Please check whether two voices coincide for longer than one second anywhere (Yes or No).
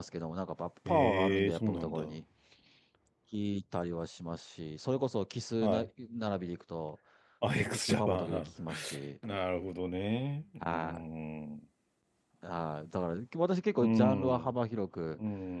Yes